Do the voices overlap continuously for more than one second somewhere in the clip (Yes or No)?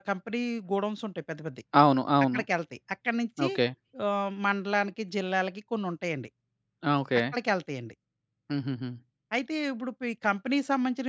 No